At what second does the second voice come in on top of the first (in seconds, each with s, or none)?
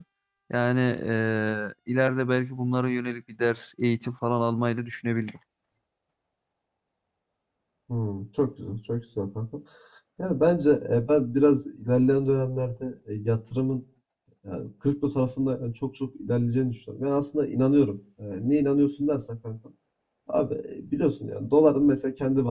none